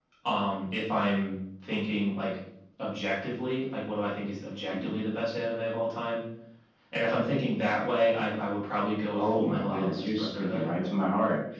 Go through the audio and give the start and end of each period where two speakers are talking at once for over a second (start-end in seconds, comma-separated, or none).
9.1-10.7